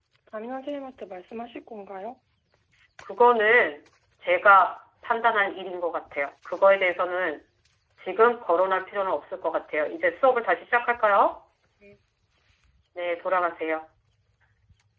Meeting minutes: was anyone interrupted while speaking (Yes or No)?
No